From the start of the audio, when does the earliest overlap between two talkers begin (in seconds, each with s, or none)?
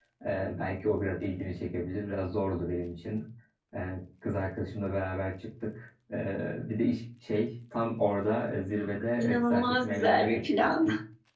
9.2 s